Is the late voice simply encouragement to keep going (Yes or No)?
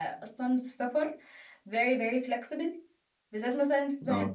Yes